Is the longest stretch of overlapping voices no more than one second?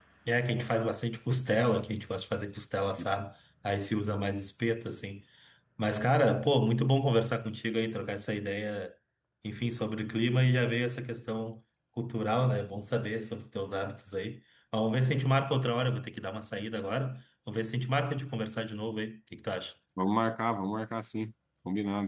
Yes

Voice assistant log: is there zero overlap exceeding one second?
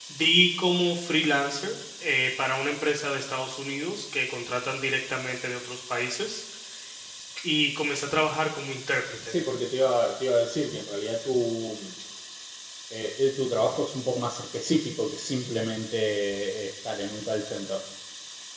Yes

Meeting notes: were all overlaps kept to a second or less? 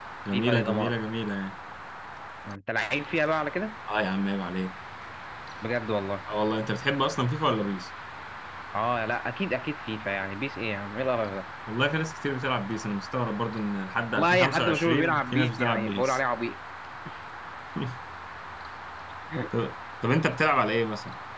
No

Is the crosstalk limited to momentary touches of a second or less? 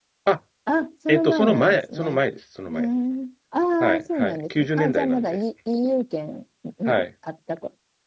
No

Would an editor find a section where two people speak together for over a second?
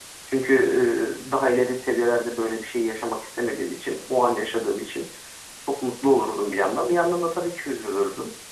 No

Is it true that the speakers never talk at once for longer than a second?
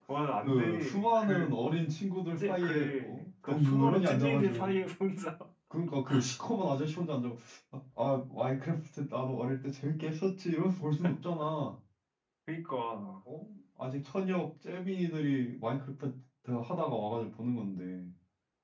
No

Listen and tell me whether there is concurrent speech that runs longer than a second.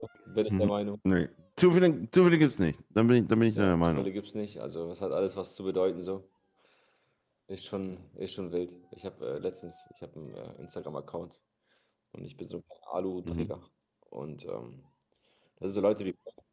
No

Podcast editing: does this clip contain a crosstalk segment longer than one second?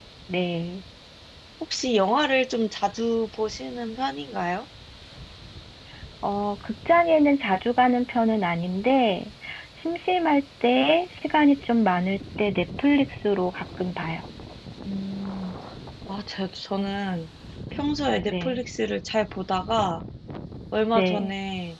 No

